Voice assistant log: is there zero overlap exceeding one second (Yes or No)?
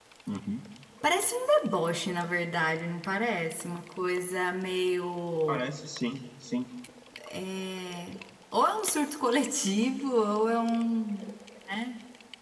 Yes